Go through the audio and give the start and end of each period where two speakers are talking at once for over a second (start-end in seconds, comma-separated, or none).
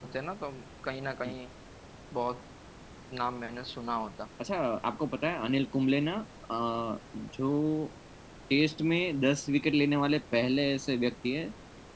none